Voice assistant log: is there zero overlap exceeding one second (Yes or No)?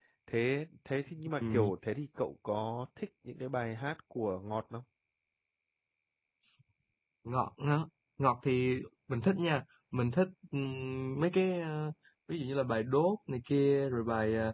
Yes